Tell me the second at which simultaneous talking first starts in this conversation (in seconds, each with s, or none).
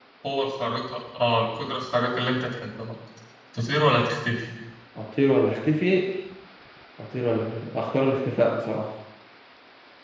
none